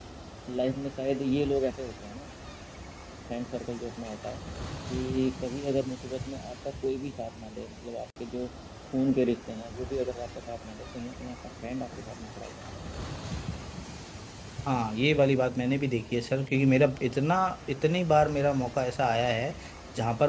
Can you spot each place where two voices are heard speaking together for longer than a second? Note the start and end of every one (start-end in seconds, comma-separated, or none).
none